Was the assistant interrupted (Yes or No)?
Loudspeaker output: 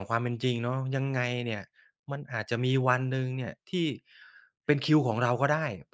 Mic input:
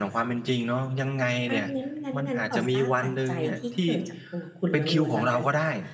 Yes